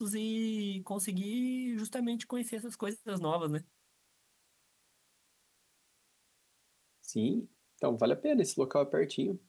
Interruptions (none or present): none